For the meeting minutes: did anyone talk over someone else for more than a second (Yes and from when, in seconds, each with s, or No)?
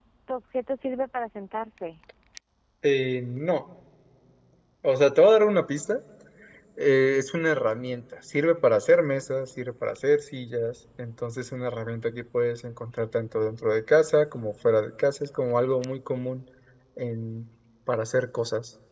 No